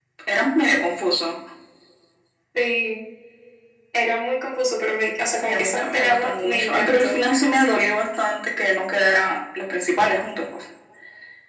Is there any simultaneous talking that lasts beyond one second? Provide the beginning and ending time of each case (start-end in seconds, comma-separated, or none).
5.4-7.1